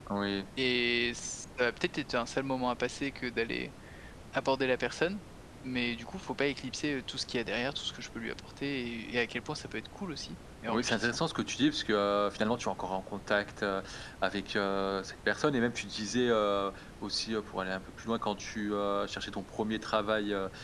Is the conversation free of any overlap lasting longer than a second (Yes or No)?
Yes